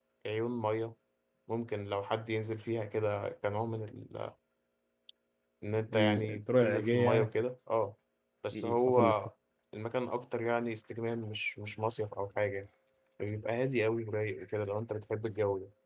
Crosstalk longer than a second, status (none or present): present